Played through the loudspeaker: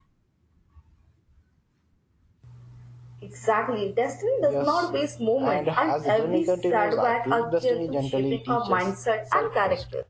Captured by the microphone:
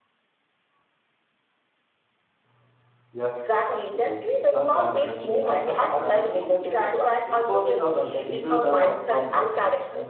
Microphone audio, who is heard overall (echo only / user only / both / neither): both